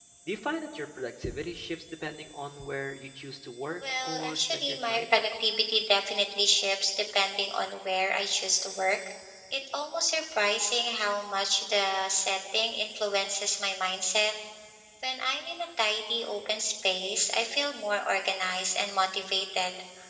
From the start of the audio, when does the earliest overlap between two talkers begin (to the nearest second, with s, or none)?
4 s